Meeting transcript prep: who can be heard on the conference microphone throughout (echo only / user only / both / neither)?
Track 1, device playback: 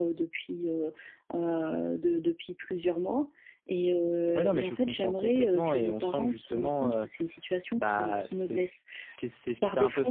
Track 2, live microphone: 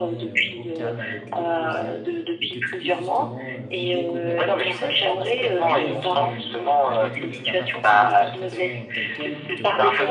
both